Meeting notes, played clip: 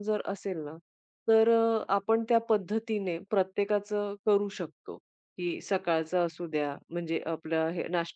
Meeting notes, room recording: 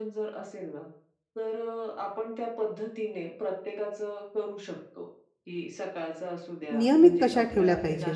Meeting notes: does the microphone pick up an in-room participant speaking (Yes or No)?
Yes